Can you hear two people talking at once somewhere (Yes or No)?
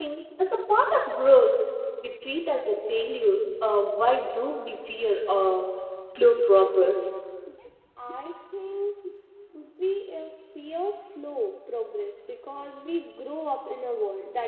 No